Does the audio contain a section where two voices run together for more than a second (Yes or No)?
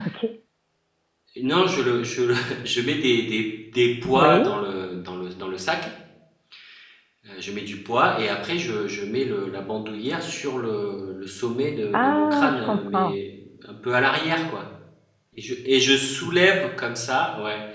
Yes